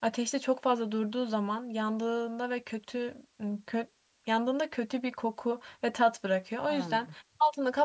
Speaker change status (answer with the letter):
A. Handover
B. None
B